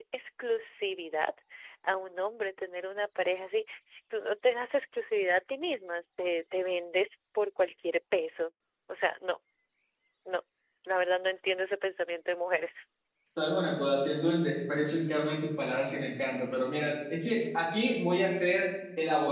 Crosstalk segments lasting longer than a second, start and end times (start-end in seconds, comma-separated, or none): none